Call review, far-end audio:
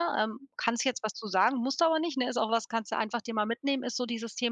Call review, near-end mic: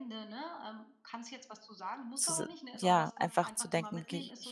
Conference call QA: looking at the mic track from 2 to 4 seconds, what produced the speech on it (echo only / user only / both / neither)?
both